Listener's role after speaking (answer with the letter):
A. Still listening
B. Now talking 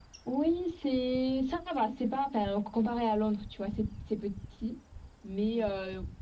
A